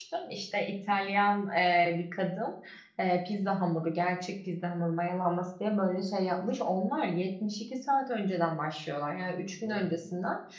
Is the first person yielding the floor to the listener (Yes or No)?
No